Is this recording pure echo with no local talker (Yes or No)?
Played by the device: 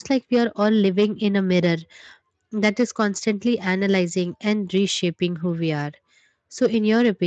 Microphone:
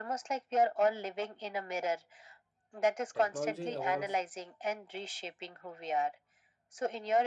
No